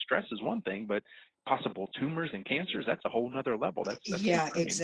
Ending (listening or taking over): taking over